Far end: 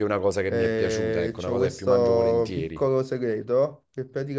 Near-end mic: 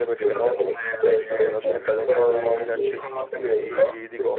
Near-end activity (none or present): present